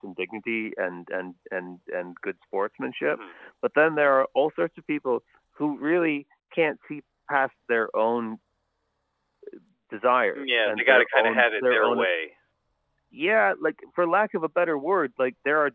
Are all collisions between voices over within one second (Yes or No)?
No